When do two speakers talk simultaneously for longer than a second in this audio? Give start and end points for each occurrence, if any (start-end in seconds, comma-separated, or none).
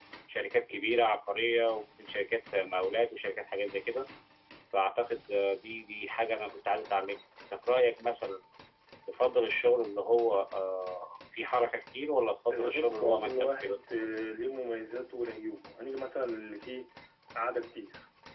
12.5-13.8